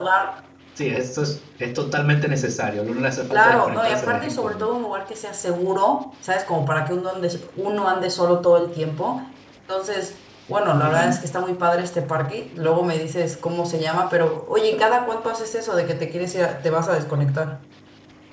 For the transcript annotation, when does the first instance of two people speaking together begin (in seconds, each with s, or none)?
3.3 s